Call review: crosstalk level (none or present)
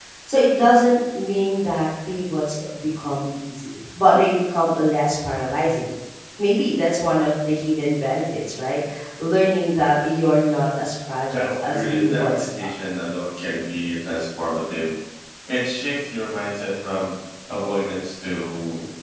present